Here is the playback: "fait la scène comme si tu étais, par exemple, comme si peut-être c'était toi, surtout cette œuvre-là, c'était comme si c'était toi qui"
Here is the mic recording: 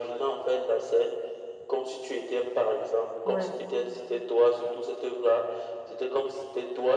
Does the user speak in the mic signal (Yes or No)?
Yes